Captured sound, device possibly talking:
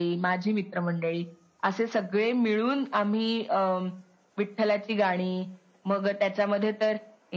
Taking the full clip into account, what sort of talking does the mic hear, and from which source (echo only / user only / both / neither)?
echo only